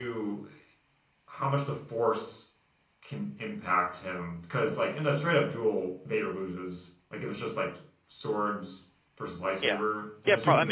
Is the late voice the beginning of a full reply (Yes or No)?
Yes